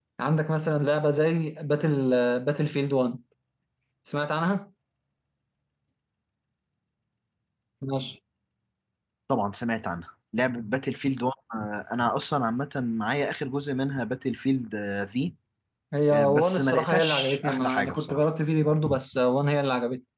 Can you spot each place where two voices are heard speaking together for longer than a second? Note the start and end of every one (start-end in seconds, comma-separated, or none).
16.1-18.2